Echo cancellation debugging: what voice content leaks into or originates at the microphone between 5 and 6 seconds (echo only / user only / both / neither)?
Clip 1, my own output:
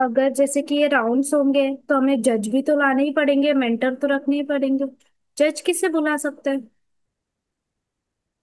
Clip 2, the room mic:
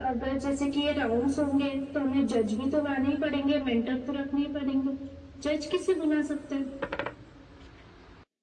echo only